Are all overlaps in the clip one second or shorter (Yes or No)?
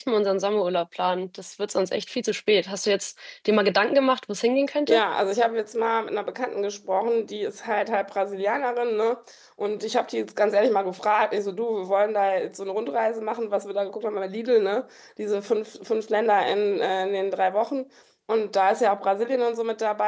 Yes